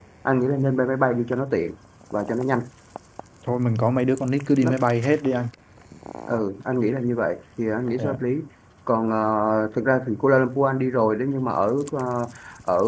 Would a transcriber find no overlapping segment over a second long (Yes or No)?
Yes